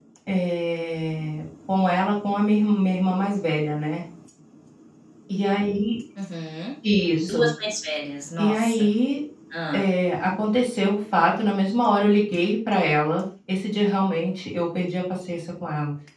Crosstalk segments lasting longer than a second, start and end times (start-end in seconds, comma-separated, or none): none